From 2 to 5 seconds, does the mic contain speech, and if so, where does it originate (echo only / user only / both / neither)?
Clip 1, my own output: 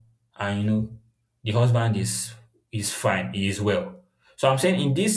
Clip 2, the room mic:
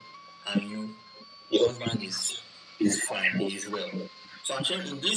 echo only